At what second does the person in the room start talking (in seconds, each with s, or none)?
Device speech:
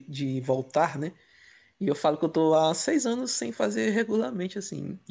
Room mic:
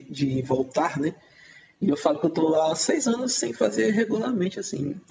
none